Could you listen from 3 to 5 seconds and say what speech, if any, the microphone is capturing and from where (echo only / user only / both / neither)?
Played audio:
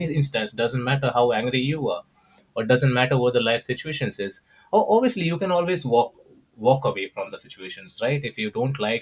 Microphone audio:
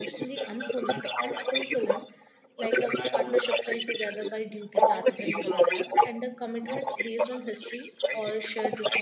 both